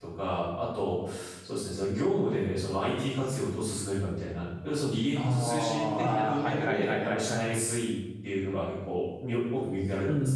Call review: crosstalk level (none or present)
present